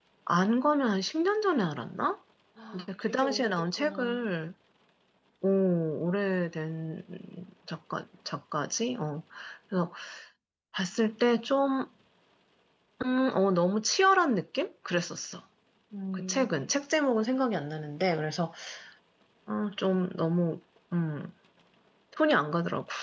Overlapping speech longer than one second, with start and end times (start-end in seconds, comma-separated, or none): 2.7-4.3